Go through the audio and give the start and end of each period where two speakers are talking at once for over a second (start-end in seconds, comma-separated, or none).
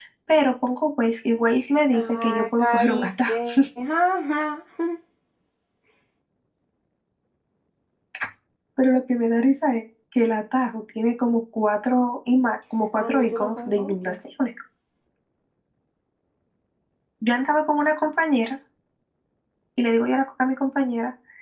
1.9-3.4, 12.9-14.1